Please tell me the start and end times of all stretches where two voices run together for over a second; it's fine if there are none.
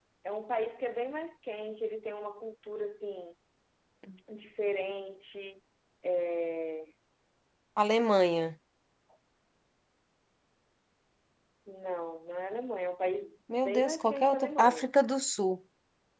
13.7-14.9

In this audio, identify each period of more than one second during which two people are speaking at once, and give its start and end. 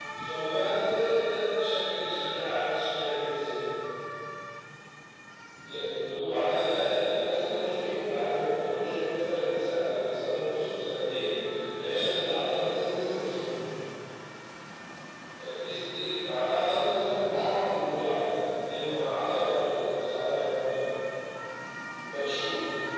7.2-8.6

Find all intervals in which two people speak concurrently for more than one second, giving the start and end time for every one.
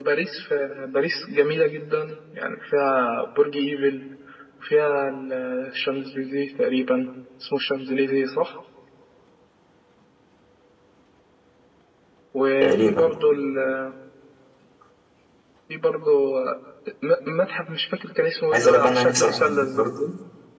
18.5-19.9

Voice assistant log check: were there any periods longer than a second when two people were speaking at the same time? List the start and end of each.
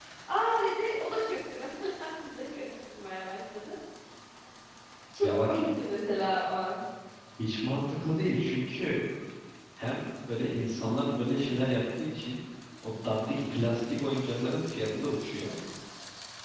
none

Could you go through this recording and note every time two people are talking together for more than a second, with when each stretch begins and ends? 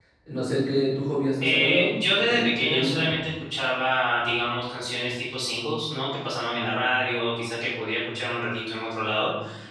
1.4-3.1

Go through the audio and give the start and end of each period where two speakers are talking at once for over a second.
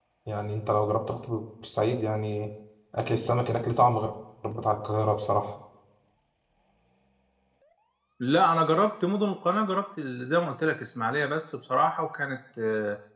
none

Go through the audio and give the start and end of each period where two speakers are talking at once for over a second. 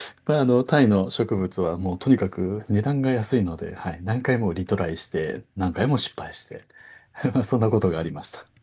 none

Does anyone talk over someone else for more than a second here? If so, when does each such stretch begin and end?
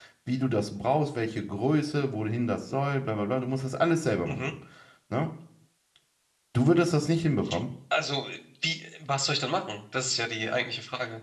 none

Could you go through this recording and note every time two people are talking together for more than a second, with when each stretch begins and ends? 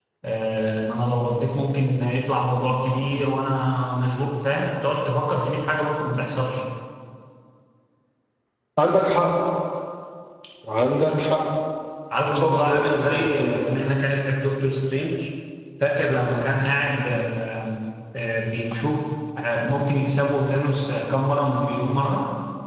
12.3-13.6

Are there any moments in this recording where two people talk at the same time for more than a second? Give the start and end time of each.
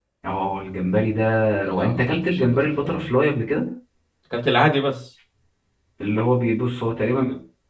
1.6-3.1

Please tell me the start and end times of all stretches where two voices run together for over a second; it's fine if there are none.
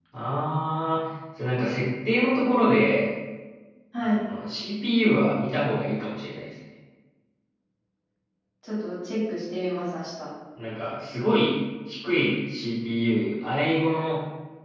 none

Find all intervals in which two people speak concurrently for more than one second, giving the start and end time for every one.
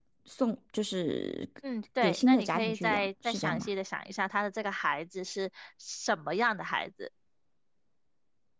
2.0-3.7

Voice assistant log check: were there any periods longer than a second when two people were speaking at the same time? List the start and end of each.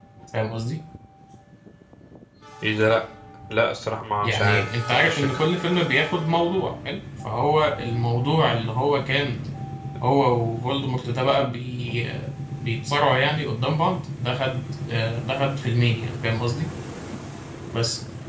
4.2-5.4

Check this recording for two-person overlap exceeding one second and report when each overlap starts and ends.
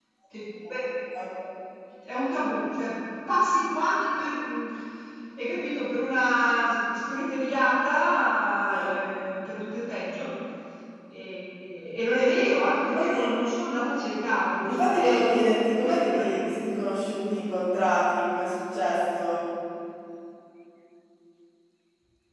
14.7-16.4

